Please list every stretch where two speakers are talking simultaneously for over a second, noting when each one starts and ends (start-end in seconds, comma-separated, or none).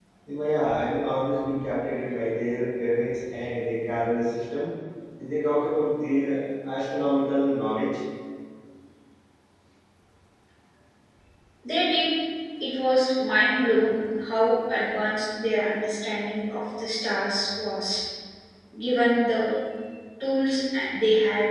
none